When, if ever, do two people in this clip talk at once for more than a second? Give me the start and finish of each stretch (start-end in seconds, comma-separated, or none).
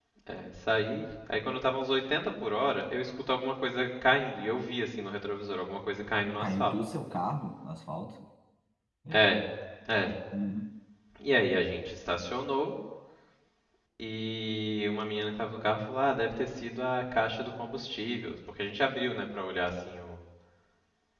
none